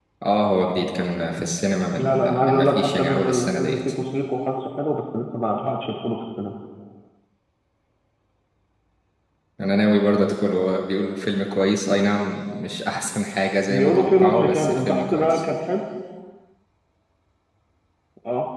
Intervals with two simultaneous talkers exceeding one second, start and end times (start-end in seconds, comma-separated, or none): 1.9-3.8, 13.7-15.4